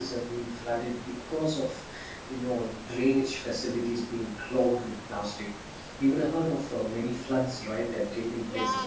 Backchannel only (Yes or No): No